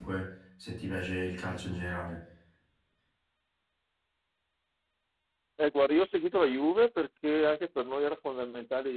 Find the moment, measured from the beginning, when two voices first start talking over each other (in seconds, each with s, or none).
none